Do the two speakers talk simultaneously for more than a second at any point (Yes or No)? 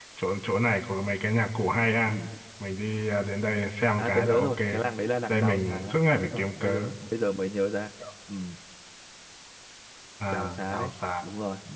Yes